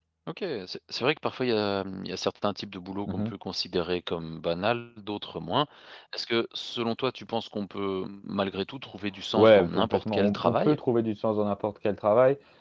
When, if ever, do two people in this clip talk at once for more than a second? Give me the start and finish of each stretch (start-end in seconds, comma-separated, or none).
9.3-10.8